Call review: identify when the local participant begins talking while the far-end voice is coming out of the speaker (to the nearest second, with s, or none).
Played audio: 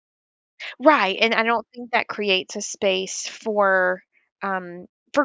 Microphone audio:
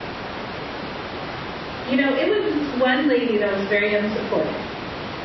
2 s